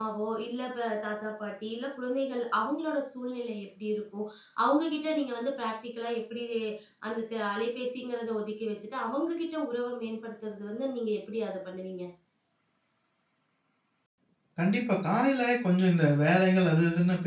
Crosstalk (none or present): none